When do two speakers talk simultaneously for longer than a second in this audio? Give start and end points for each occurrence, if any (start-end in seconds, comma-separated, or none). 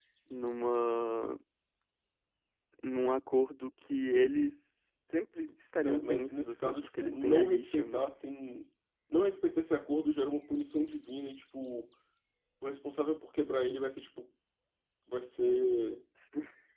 5.8-8.0